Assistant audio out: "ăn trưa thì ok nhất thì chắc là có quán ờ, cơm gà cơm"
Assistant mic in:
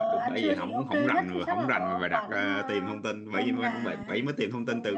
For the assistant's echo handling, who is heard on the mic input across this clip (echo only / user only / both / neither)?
both